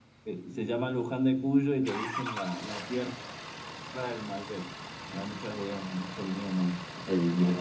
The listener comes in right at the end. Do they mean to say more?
Yes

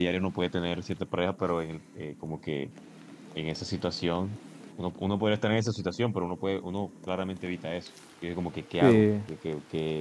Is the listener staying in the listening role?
Yes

